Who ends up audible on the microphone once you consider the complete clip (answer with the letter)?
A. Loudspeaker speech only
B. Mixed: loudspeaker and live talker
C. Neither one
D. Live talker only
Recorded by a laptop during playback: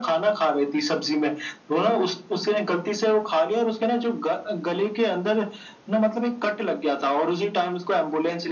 A